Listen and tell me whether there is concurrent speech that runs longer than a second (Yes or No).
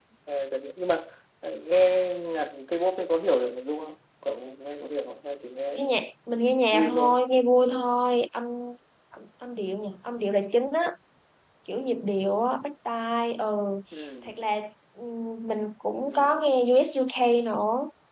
No